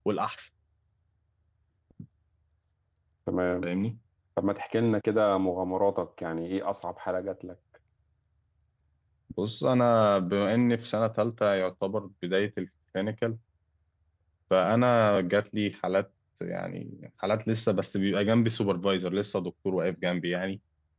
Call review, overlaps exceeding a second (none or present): none